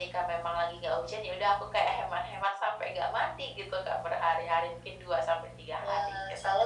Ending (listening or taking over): taking over